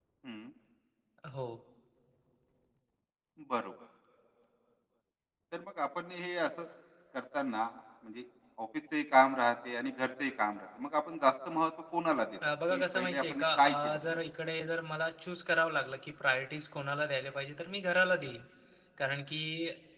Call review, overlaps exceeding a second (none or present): present